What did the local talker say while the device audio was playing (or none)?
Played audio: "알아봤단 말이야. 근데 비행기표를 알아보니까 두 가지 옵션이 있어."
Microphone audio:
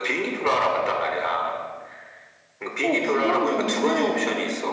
어, 두 번 경유는